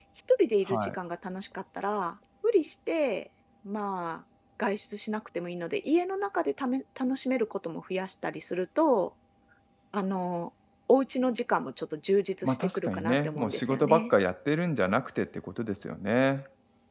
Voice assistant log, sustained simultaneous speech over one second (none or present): present